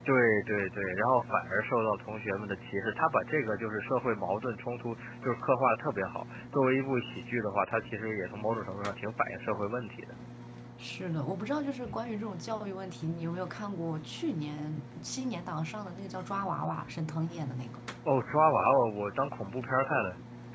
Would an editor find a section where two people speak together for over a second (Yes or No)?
No